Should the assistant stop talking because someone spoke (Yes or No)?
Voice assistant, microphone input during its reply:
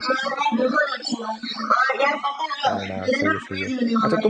Yes